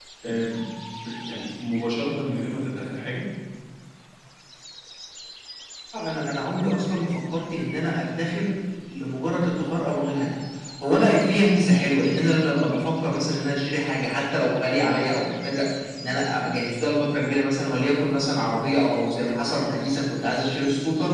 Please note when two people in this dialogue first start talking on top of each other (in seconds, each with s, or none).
none